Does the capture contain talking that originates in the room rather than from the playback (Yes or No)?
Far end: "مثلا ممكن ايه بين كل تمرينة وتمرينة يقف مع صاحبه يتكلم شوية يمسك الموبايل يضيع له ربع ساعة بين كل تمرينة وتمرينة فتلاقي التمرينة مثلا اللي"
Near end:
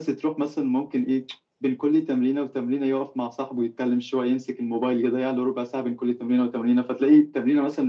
No